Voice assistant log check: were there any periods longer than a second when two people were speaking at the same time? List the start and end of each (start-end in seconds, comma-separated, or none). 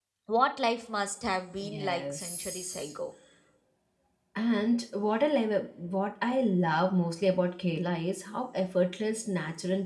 1.6-2.9